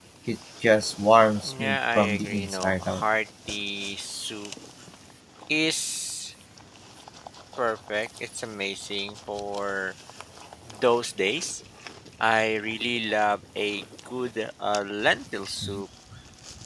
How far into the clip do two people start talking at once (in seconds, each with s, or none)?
1.4 s